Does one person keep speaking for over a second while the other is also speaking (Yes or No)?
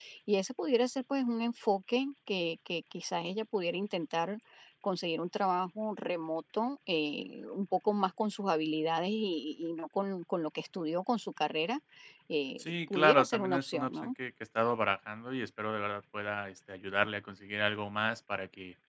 Yes